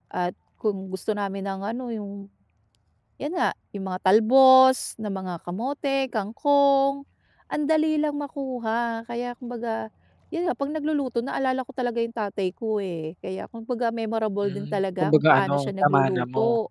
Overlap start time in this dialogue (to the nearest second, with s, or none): 14 s